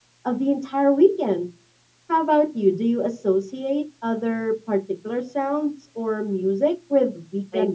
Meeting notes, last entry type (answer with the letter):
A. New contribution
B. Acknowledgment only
A